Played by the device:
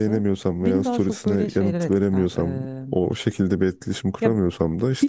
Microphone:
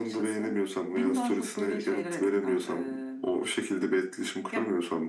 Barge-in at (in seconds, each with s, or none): none